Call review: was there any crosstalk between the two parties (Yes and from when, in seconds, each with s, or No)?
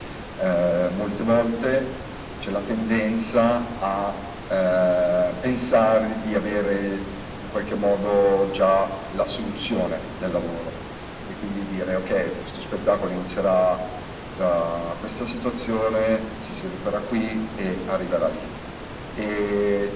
No